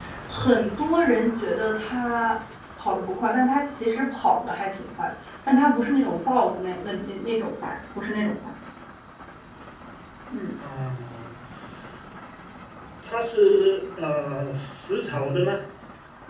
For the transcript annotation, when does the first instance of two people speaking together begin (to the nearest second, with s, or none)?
none